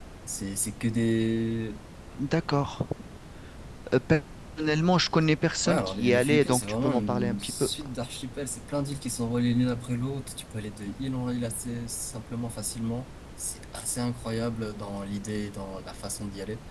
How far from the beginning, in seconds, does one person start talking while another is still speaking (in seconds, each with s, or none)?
5.7 s